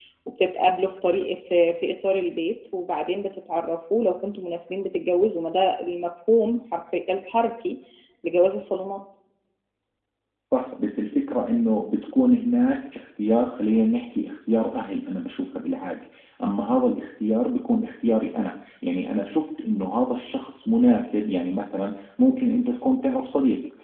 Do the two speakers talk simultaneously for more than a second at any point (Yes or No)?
No